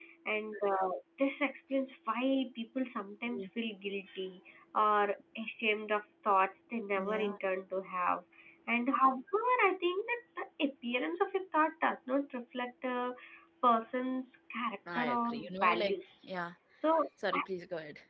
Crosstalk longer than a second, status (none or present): present